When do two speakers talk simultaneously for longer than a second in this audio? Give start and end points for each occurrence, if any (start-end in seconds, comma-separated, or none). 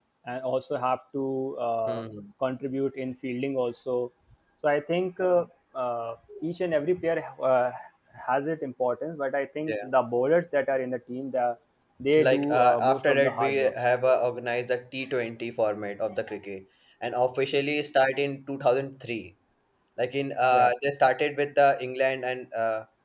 12.2-13.7